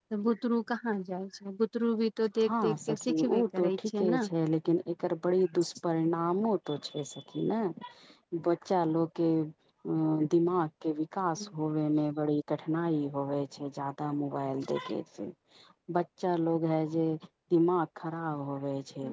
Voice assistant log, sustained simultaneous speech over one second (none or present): present